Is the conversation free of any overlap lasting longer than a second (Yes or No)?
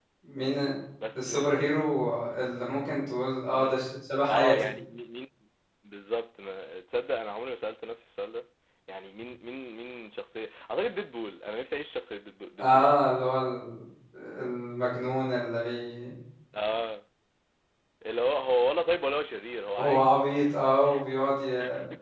Yes